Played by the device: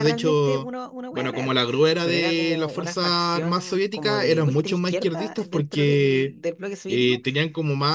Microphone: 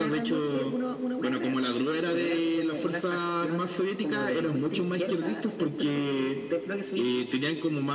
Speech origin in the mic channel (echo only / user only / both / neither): echo only